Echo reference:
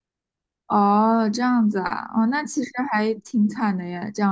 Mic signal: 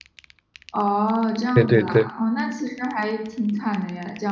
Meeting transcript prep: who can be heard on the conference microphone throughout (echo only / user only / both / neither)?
both